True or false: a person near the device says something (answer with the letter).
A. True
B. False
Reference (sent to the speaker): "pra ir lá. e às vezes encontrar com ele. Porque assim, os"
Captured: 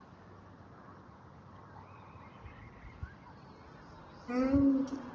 A